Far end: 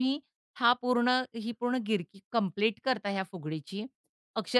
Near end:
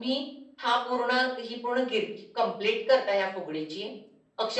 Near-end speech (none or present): none